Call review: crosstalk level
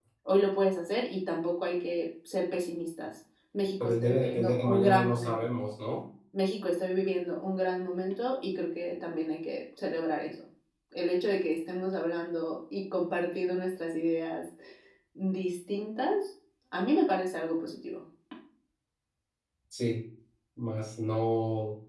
present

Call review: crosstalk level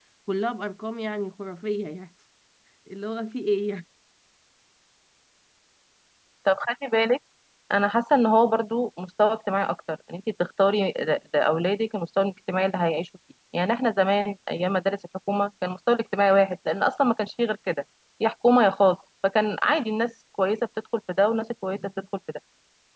none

